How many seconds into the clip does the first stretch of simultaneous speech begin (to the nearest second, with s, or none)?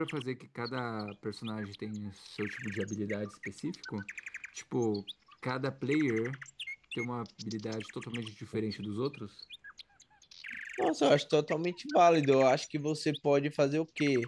none